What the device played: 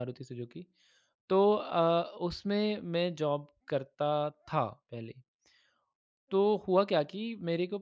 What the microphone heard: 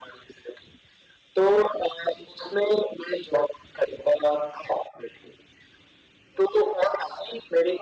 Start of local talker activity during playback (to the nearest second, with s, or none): none